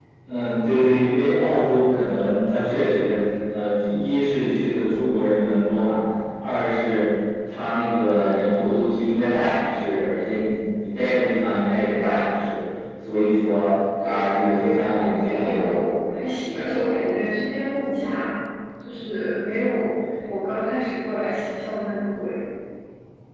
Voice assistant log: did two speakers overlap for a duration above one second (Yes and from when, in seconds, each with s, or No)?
Yes, from 14.0 s